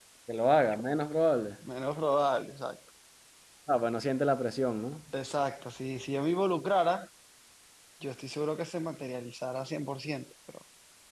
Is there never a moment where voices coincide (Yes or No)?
Yes